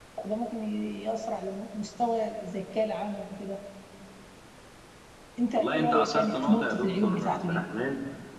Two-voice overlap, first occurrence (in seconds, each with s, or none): 5.5 s